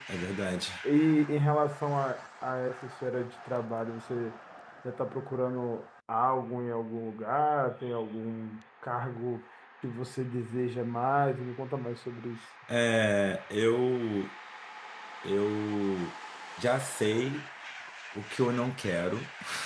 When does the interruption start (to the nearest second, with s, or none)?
none